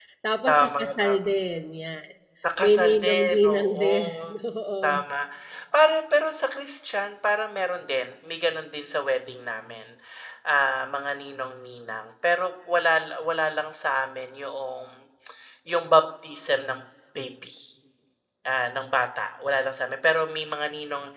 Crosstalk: present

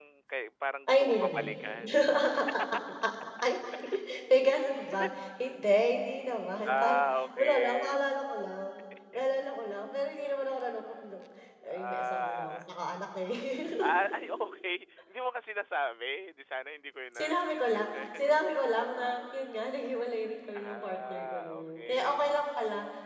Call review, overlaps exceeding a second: present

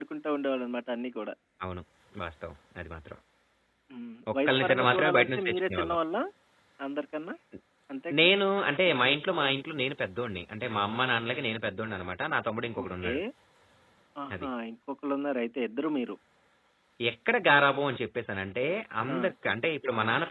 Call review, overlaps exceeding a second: present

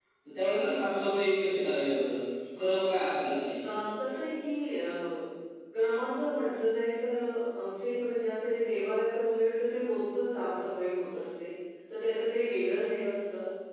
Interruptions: none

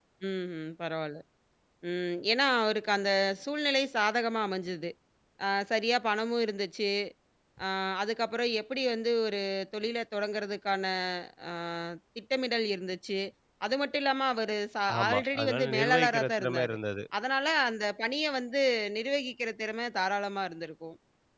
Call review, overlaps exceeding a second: present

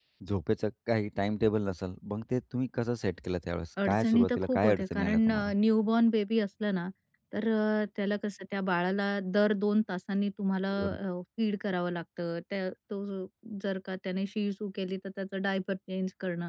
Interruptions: present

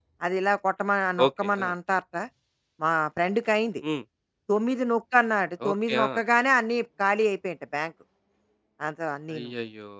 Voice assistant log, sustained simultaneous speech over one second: none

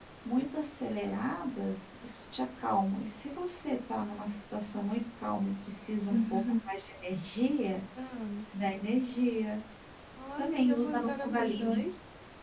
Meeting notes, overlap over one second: present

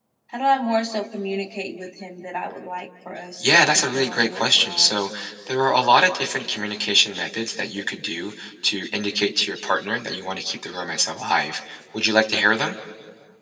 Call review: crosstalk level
present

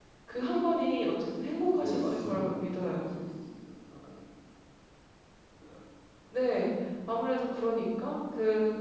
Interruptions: present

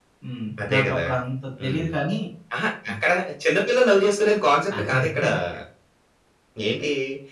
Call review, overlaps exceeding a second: none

